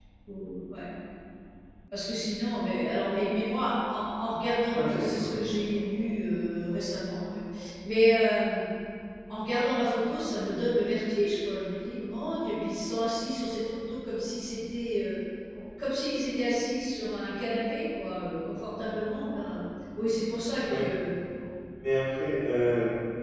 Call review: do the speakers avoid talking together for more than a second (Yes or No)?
Yes